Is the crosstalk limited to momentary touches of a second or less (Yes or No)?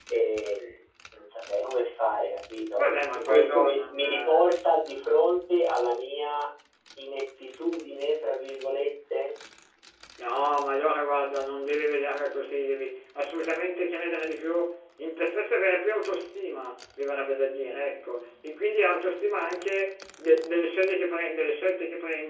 No